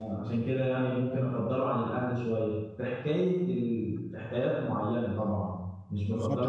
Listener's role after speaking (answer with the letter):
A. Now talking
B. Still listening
A